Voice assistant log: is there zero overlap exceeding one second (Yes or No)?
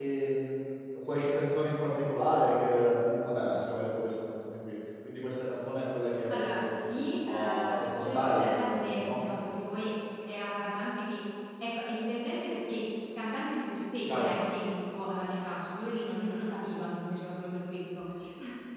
No